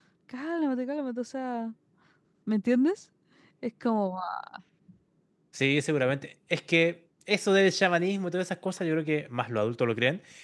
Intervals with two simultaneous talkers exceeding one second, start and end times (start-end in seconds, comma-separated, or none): none